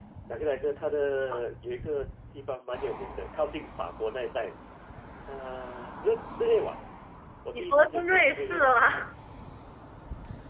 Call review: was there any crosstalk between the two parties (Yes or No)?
Yes